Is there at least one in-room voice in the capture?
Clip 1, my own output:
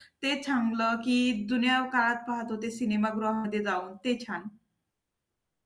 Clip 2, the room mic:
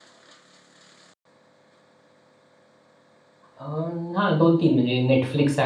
Yes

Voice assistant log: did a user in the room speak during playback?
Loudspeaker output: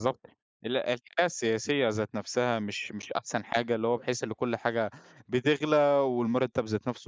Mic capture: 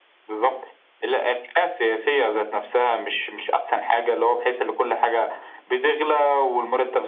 No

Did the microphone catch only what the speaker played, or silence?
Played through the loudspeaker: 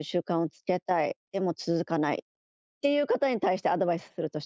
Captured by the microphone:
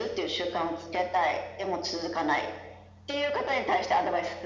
Yes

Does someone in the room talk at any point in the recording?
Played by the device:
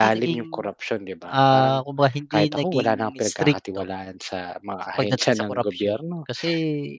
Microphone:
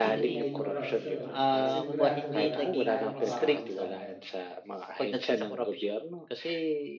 Yes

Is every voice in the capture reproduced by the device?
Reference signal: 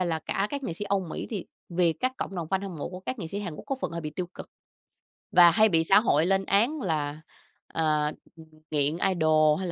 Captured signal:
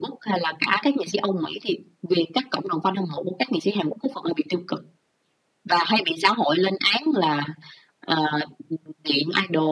Yes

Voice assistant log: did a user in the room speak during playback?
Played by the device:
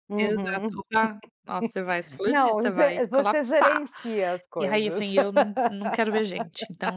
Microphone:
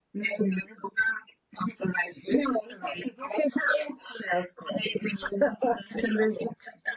No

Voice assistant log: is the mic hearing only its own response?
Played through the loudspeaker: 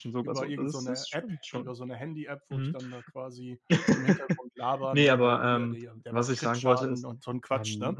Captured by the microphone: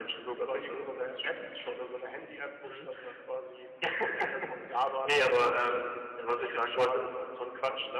Yes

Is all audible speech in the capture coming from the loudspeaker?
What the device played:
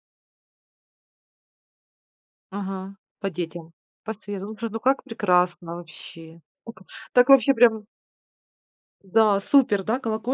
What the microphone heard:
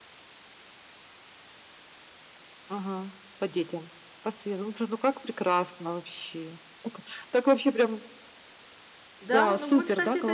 No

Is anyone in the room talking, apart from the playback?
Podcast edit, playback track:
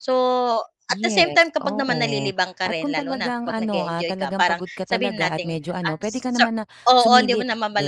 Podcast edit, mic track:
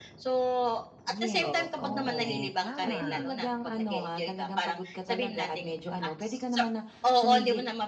Yes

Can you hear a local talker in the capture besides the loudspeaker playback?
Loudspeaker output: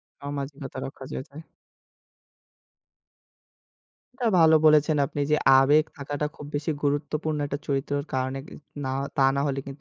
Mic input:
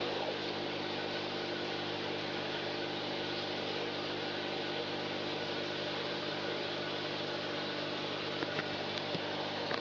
No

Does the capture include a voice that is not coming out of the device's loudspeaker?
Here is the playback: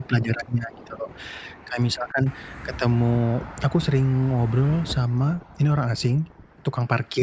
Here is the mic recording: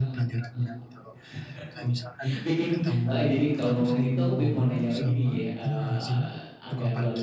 Yes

